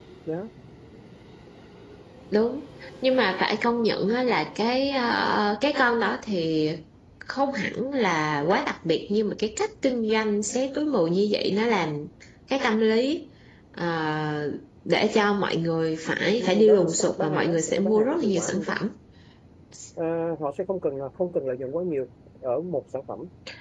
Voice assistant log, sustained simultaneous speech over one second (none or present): present